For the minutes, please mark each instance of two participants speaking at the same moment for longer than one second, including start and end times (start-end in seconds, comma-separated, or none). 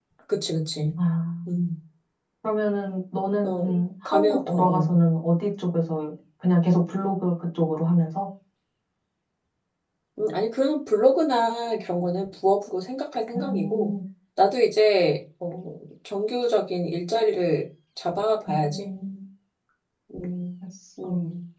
3.4-4.9